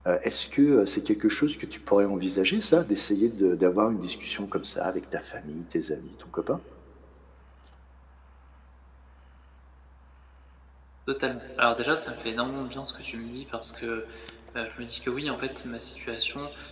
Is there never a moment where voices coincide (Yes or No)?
Yes